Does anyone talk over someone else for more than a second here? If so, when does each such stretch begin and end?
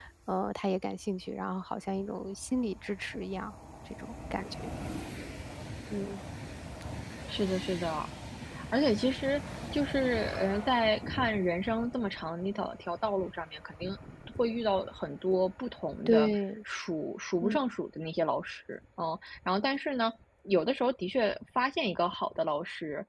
none

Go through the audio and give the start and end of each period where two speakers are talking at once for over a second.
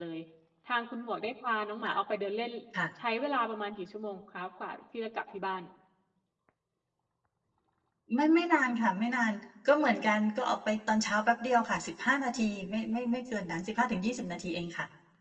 none

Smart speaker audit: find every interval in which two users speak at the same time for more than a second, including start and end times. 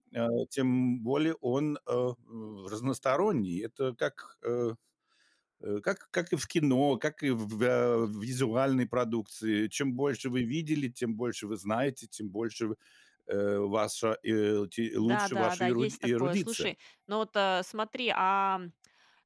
15.0-16.7

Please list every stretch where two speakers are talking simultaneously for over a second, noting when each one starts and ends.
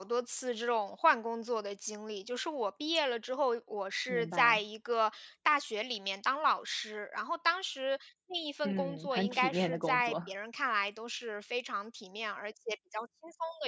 8.6-10.2

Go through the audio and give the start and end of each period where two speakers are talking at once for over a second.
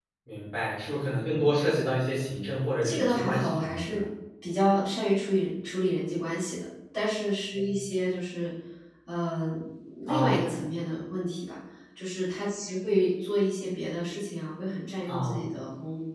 2.8-4.0

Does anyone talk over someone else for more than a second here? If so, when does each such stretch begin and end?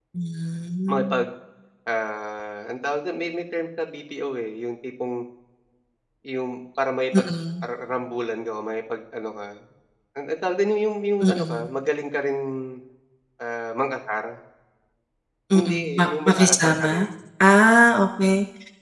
15.5-17.1

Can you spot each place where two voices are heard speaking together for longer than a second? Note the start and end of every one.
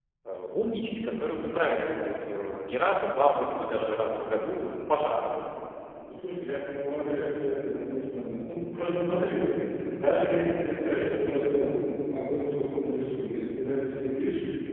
none

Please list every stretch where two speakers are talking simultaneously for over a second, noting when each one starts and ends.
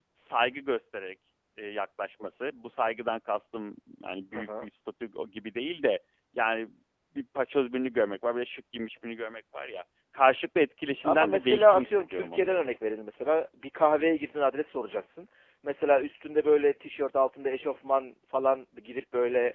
11.0-12.5

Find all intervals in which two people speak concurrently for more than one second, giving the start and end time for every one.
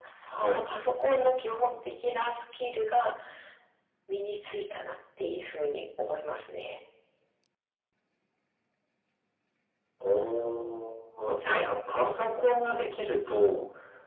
none

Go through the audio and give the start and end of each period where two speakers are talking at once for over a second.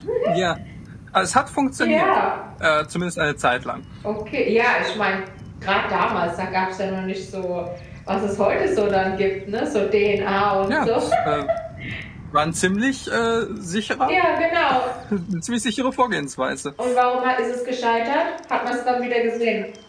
none

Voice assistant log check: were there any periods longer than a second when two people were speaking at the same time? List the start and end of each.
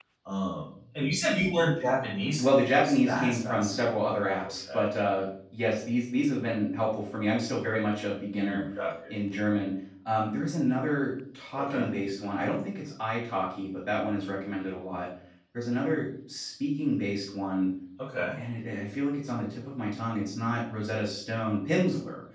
2.4-3.9

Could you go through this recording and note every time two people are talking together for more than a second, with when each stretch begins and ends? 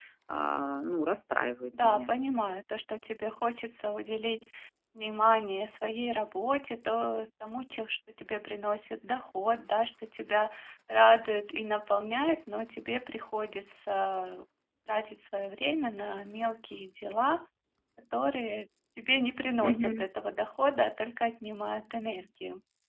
none

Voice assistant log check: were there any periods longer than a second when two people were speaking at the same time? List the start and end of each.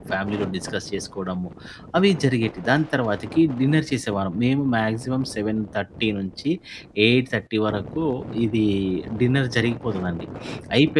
none

